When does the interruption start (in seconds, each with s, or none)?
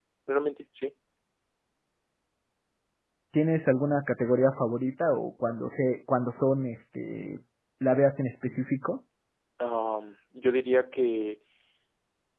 none